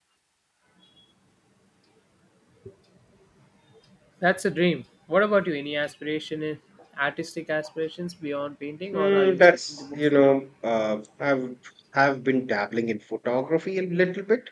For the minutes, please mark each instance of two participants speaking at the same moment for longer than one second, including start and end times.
8.9-10.4

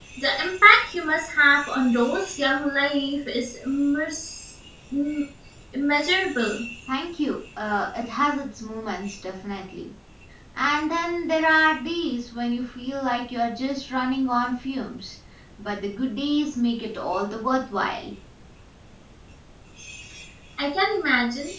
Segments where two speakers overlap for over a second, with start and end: none

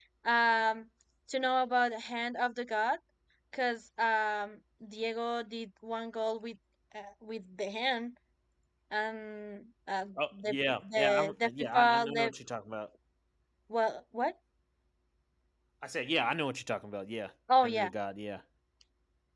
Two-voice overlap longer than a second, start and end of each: 10.9-12.3

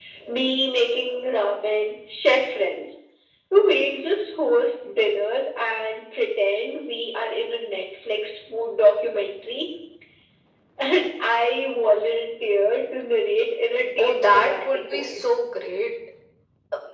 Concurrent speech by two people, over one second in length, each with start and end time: 14.0-15.3

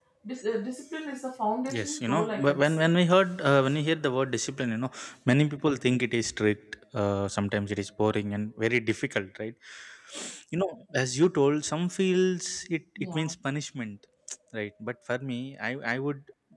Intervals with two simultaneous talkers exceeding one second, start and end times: 1.7-2.9

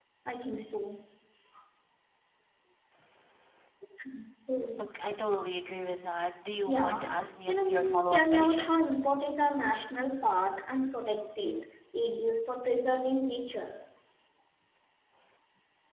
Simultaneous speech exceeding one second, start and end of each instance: 7.5-8.7

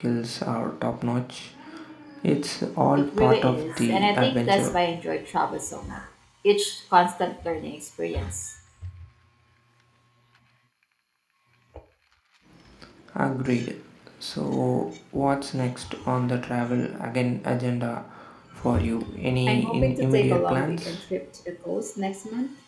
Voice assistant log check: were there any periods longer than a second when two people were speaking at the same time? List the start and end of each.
3.1-4.8, 19.5-21.0

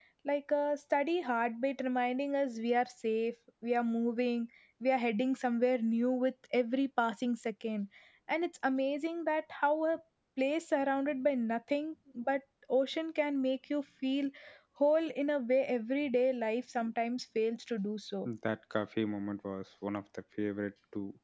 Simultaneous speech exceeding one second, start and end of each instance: none

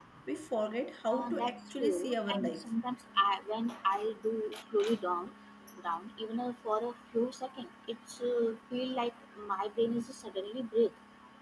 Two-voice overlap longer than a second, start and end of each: 1.1-2.7

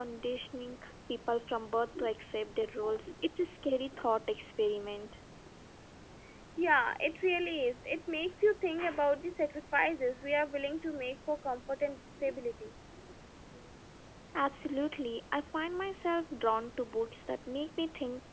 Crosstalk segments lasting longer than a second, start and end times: none

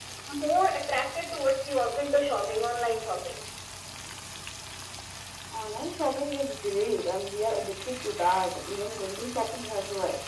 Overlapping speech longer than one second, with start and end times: none

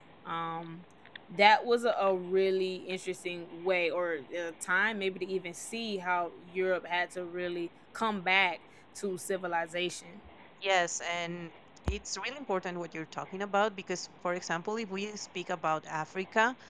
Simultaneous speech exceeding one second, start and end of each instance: none

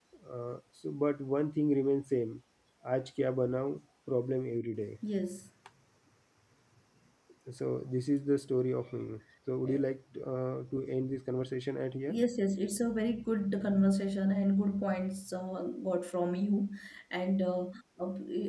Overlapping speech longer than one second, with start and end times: none

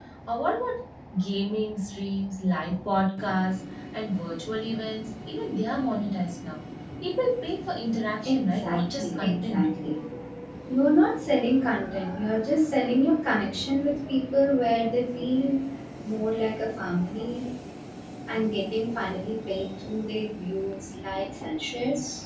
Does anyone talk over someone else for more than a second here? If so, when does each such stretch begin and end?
8.2-9.7

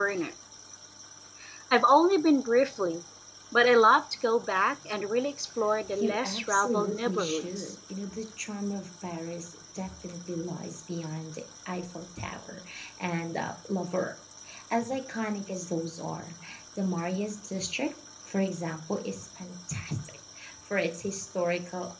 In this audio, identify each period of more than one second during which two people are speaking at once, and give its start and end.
6.0-7.7

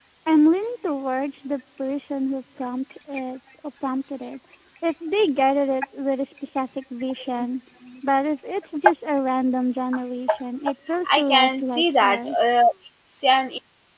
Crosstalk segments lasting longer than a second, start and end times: 11.2-12.4

